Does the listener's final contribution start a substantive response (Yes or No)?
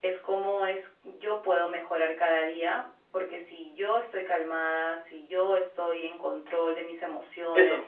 No